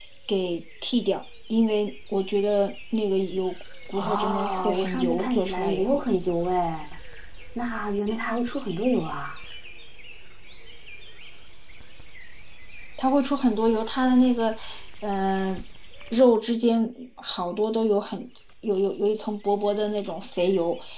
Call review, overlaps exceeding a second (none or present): present